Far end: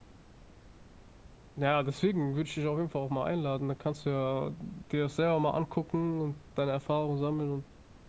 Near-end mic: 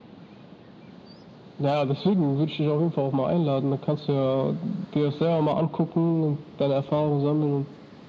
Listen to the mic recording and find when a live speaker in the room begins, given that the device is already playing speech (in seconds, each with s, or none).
none